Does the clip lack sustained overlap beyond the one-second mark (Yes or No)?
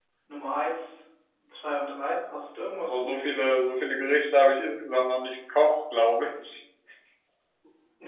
Yes